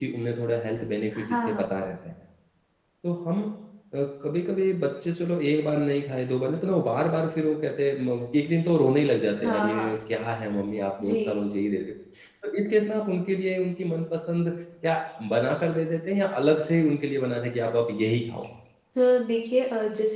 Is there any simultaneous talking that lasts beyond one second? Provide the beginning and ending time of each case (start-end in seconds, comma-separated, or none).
none